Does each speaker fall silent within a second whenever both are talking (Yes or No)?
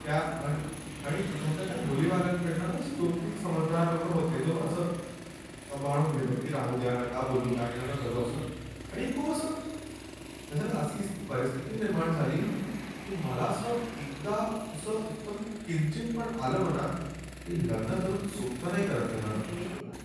Yes